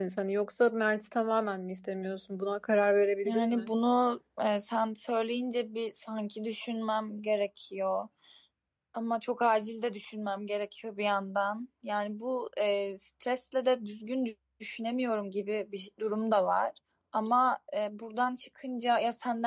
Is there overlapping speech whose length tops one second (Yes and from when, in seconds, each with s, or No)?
No